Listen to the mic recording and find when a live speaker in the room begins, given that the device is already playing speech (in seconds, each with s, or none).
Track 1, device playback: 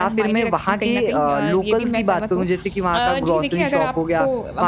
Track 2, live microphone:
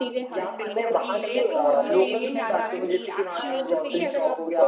0.7 s